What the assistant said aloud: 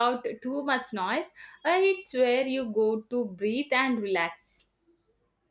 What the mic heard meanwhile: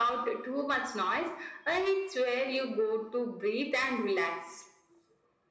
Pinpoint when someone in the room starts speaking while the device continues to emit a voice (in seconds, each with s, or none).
none